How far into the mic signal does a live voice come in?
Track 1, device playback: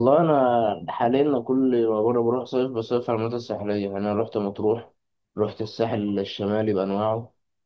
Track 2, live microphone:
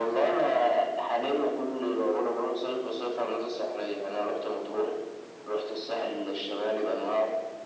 none

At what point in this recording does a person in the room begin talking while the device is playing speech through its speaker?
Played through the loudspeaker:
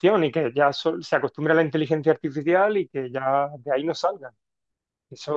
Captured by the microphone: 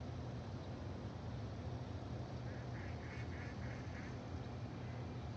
none

